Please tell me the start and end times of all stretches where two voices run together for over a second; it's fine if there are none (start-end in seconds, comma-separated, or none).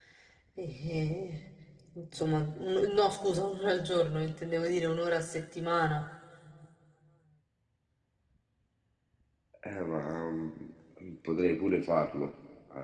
none